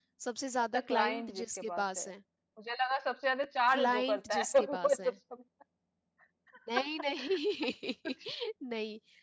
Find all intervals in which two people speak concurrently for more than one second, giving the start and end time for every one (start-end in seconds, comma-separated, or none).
0.7-2.1, 3.7-5.1